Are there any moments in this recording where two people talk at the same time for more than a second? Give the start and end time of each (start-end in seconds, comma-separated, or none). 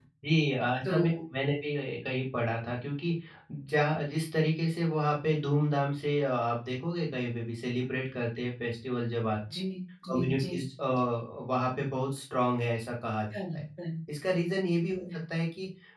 none